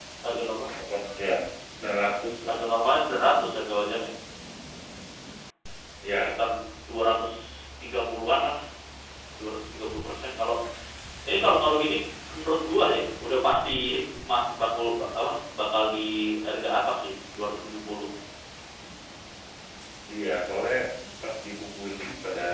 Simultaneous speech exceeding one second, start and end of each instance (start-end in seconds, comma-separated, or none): none